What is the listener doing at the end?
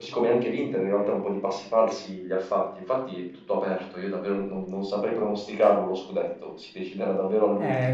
taking over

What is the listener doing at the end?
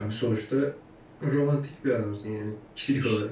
taking over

